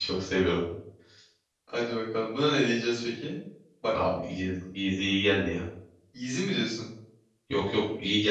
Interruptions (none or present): none